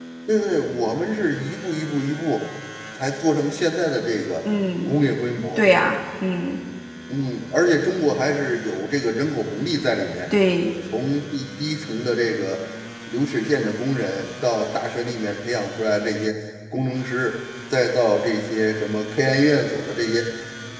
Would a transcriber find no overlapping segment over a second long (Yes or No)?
Yes